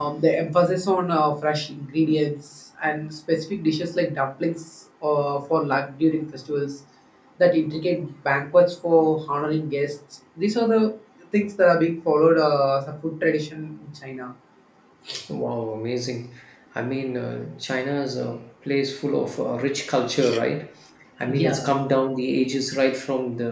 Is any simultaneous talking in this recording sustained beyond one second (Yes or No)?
No